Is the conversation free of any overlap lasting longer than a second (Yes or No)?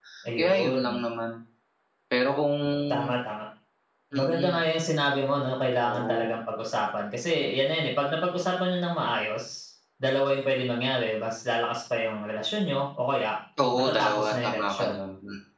No